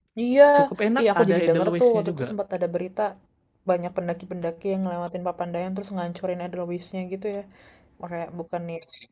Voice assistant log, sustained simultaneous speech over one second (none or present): present